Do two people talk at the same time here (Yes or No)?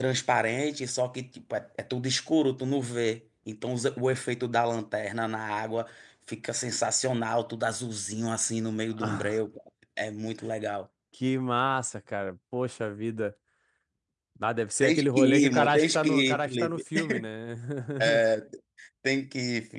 Yes